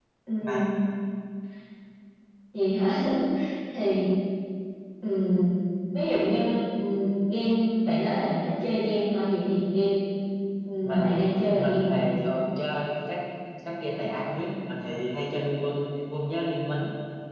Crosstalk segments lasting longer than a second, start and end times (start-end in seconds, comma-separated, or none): 10.8-12.1